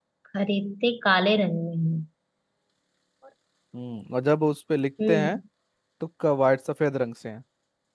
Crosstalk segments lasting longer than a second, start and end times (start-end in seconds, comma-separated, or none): none